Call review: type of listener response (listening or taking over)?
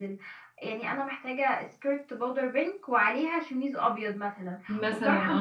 listening